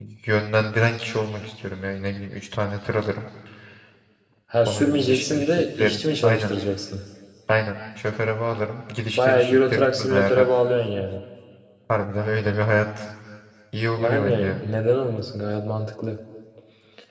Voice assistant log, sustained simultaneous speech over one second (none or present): present